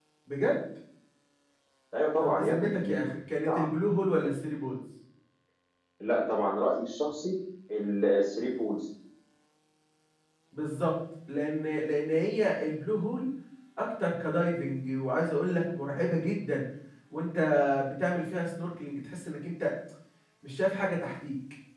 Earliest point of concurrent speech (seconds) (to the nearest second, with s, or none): 2 s